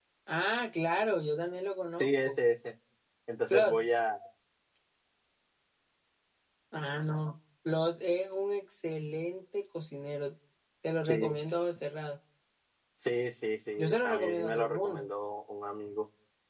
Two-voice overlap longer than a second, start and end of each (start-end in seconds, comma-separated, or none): 13.8-15.1